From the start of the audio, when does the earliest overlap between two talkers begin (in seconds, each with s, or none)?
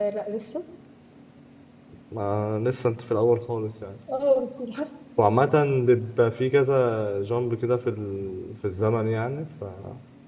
none